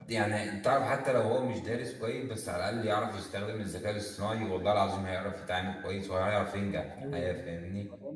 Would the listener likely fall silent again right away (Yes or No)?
No